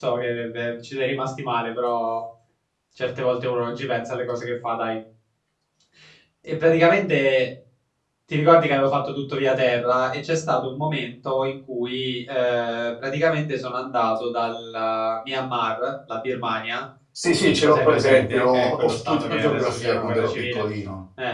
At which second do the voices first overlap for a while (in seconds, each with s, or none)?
17.5 s